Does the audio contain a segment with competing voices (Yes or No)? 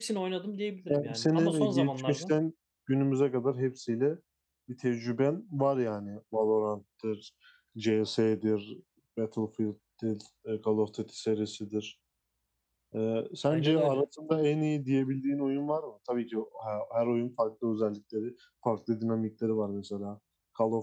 Yes